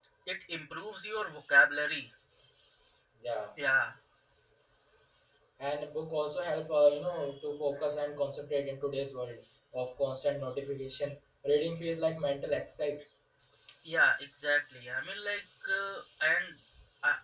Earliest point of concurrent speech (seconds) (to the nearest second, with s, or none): none